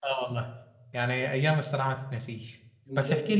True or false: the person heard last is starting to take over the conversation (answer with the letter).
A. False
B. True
A